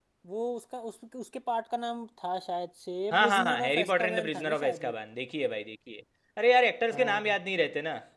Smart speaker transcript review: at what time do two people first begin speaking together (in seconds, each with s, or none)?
3.1 s